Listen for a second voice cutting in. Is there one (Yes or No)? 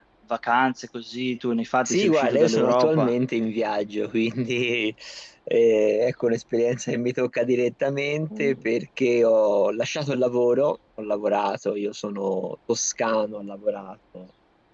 Yes